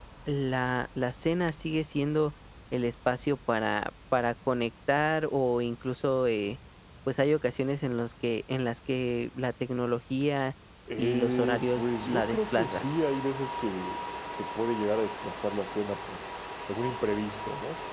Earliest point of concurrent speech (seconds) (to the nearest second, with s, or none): 11 s